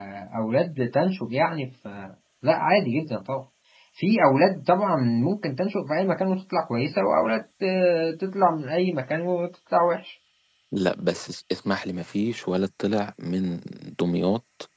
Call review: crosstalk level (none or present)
none